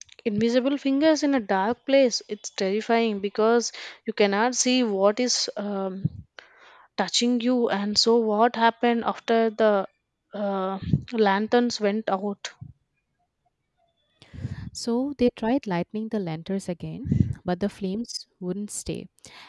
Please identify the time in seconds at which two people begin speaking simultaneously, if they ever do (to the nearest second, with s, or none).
none